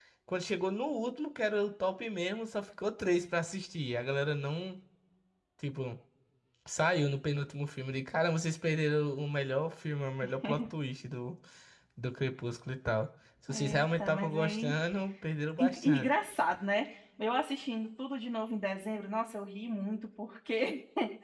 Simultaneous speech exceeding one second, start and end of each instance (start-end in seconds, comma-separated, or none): 13.5-14.7